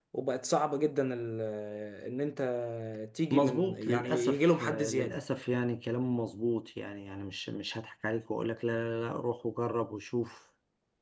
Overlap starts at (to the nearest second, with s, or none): 3 s